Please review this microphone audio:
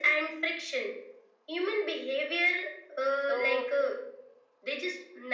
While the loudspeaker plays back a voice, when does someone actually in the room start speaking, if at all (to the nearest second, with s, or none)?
3 s